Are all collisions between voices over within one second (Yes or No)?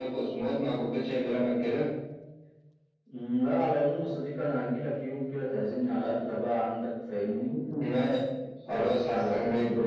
No